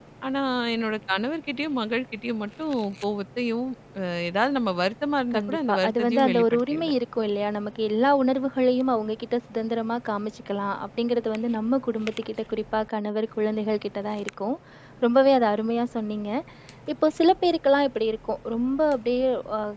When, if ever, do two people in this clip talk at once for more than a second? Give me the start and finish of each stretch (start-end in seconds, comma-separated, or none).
5.3-6.9